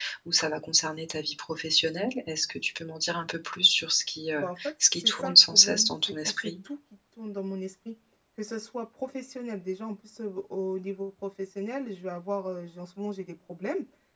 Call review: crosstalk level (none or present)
present